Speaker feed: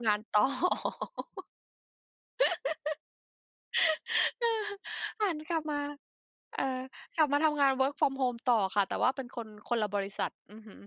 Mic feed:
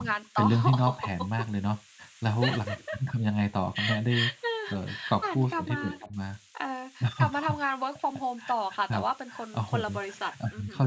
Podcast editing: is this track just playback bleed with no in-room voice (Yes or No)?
No